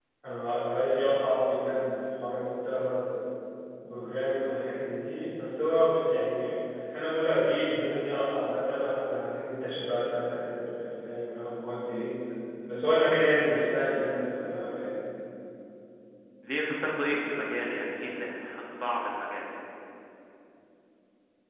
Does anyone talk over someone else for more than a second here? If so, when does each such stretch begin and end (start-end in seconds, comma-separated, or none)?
none